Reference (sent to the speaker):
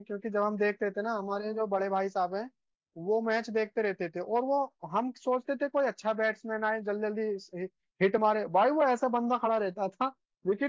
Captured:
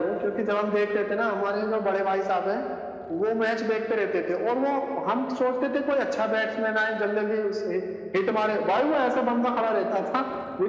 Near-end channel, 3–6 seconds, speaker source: echo only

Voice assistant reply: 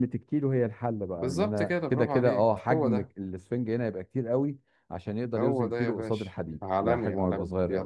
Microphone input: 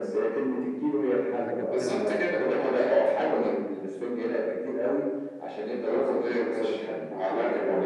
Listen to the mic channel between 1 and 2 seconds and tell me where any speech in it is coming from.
both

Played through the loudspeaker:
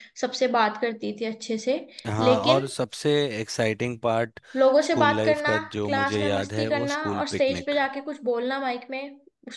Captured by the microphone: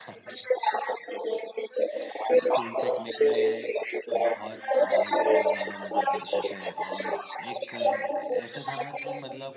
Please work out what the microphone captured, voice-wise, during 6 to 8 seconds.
both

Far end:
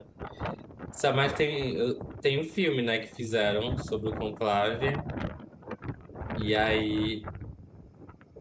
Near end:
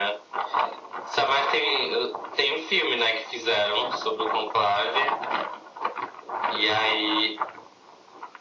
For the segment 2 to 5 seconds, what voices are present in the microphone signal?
echo only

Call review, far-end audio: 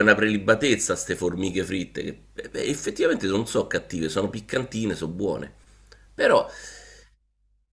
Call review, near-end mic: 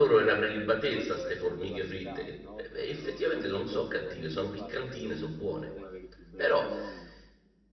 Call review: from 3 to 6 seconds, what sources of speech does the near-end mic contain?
both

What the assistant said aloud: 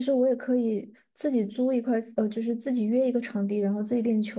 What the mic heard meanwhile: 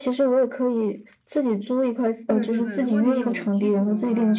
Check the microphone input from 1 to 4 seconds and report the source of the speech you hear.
both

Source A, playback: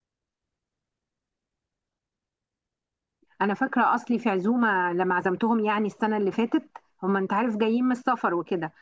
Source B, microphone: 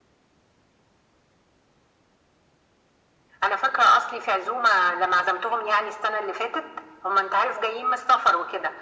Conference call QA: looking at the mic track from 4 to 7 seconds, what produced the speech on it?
echo only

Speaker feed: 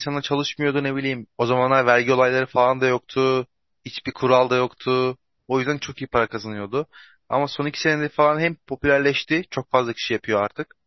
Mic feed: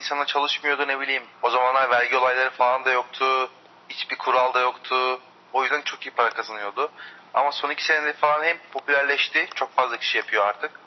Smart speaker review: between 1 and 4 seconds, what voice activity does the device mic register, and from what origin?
echo only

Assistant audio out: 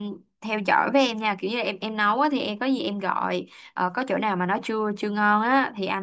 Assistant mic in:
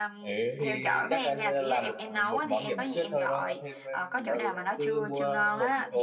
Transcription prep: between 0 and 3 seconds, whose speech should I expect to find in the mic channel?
both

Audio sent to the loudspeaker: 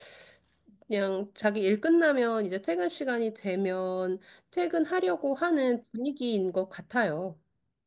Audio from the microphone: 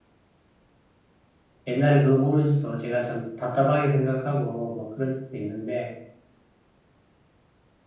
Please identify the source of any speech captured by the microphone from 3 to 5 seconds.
user only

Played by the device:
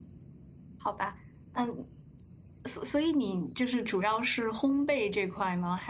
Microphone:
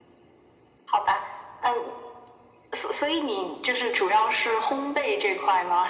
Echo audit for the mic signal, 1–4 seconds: echo only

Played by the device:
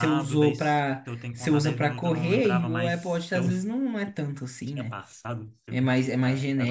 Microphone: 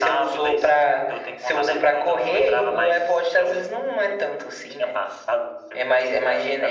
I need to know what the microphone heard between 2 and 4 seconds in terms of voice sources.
echo only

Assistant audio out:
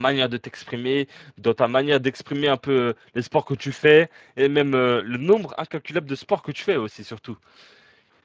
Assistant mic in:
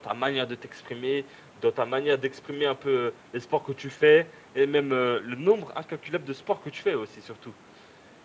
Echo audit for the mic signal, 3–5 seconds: echo only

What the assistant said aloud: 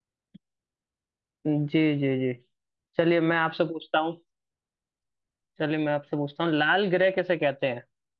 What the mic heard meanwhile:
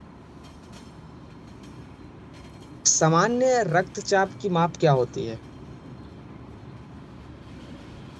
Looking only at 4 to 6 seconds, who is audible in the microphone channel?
user only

